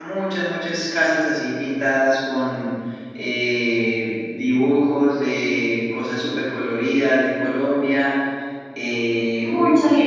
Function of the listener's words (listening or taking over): taking over